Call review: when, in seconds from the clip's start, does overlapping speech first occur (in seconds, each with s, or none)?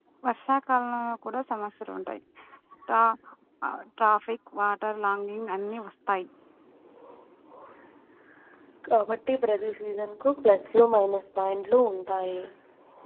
none